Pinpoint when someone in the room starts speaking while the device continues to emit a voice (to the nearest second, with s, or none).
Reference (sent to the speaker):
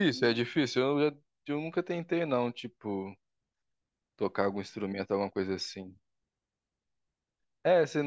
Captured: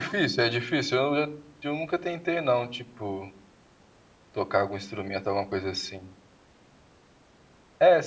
none